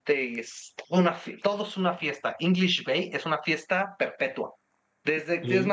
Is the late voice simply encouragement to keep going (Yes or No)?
Yes